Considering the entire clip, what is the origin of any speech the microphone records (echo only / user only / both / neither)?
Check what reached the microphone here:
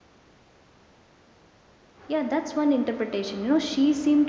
user only